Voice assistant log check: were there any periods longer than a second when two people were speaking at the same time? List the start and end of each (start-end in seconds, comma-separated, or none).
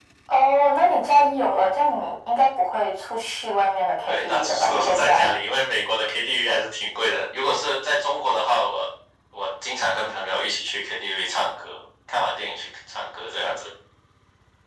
4.1-5.3